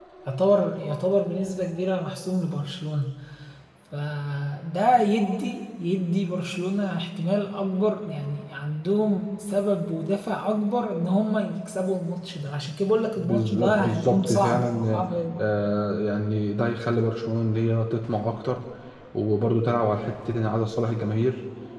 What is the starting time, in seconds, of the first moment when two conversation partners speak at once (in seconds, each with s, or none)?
13.2 s